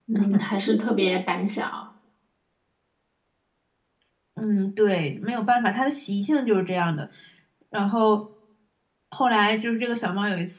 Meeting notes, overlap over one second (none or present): none